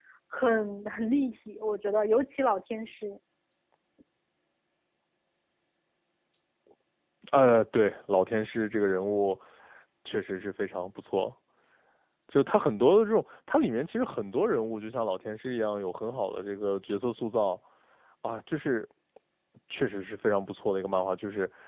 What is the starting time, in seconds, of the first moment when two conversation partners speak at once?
none

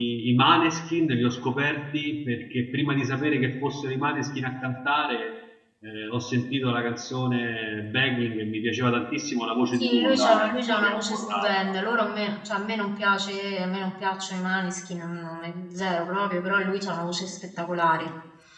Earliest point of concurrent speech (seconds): 9.8 s

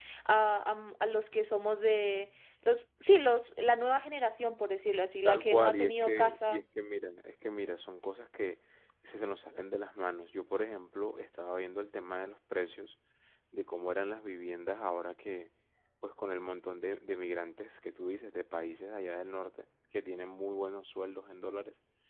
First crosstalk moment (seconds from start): 5.2 s

